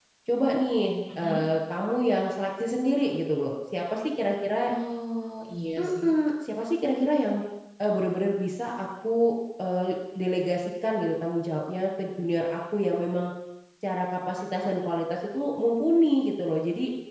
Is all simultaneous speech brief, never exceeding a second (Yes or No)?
Yes